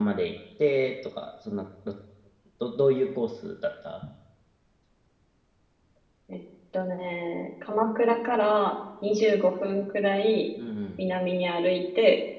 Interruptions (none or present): none